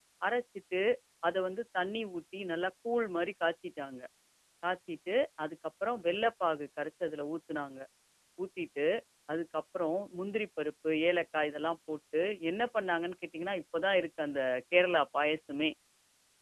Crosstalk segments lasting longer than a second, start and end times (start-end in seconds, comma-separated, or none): none